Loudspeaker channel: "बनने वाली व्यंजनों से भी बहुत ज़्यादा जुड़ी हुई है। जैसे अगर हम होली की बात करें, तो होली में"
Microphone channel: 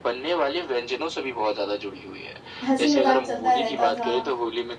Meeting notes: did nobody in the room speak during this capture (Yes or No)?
No